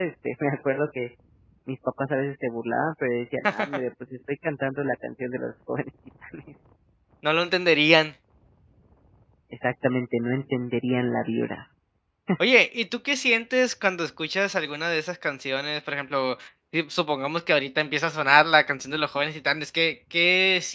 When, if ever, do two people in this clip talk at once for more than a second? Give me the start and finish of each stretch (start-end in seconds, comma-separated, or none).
none